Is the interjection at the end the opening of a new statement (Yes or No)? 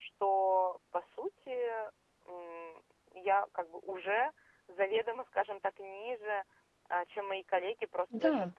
No